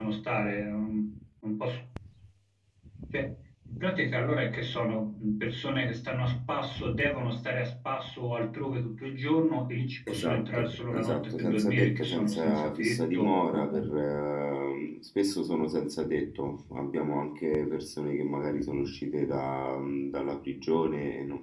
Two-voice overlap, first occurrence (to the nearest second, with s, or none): 10 s